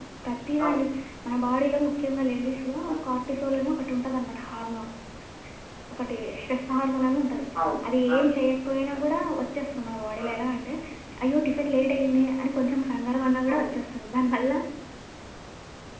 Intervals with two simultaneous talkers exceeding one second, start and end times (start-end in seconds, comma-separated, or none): none